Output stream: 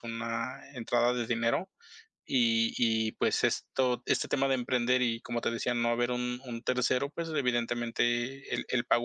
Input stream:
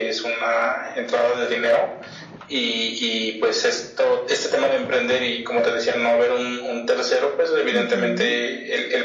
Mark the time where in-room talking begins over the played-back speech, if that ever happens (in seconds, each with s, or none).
7.7 s